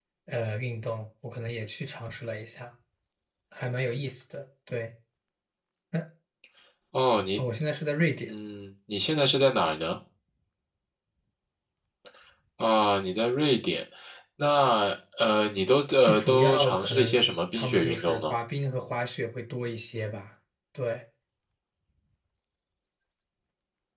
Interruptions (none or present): present